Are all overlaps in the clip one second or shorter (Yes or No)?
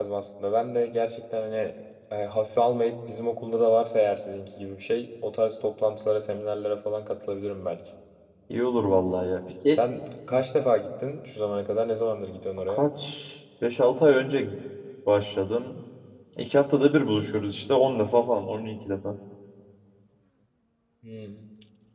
Yes